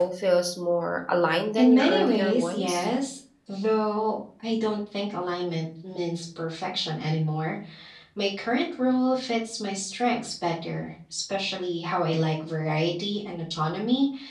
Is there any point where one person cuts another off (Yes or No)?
Yes